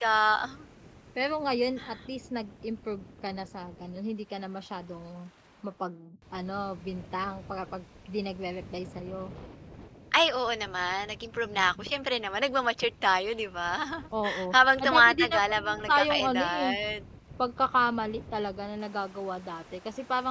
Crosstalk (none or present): present